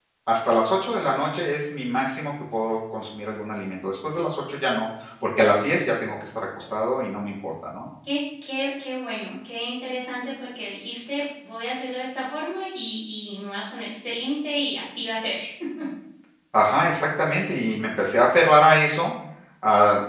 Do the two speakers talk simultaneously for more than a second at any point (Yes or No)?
No